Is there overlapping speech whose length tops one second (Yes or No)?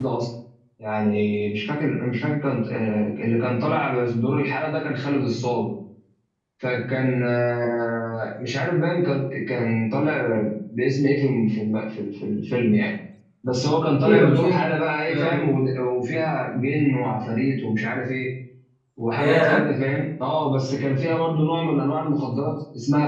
Yes